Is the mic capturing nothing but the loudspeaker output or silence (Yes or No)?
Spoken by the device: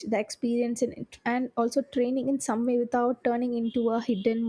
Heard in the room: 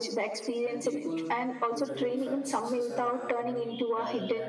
No